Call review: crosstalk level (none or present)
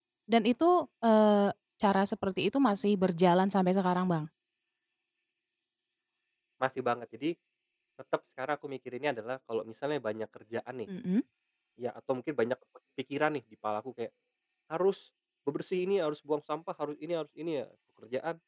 none